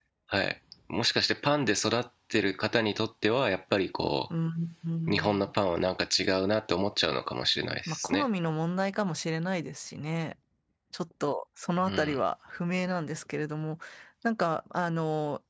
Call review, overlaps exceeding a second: none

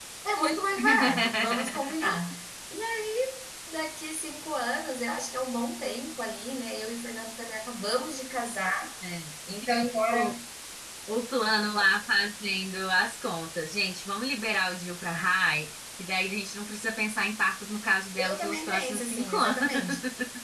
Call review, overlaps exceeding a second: present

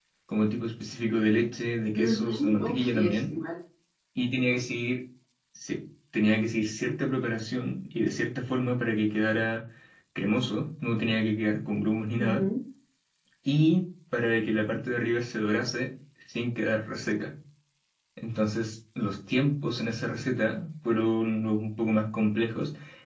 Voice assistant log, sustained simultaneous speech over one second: present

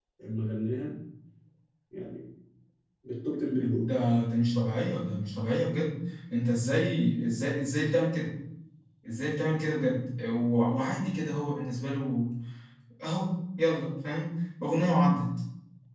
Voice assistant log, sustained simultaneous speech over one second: none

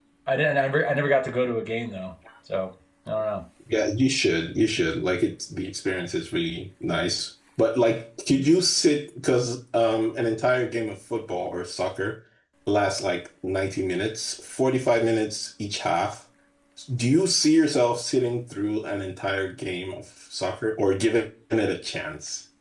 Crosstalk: none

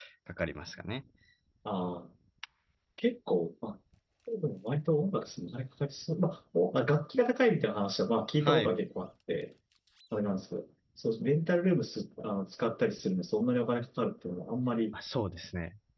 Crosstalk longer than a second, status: none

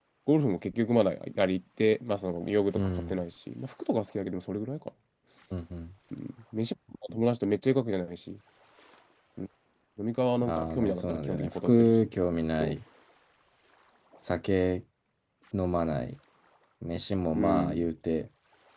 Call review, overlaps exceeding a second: present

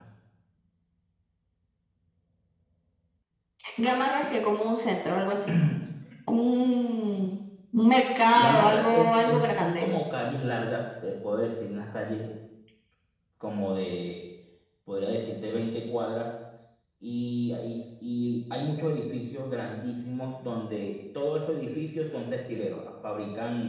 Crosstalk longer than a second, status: present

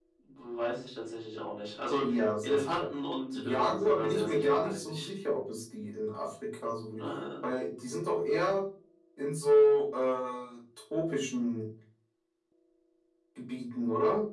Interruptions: present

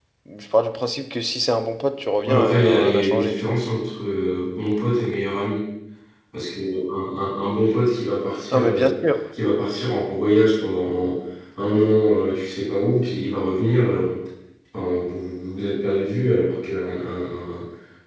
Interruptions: present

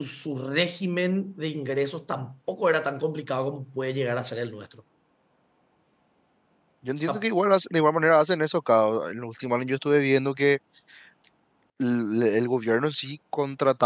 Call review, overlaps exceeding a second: none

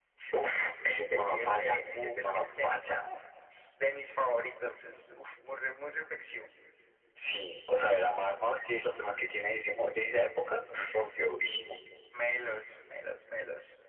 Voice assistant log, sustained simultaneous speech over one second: present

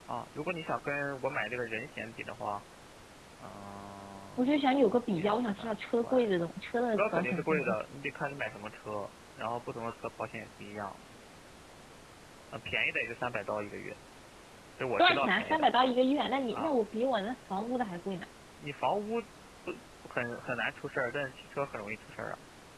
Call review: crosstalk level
present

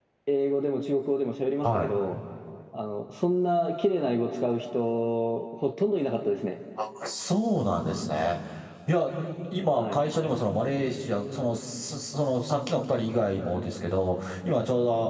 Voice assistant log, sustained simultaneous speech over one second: none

